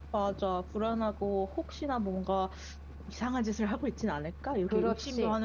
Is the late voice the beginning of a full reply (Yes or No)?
Yes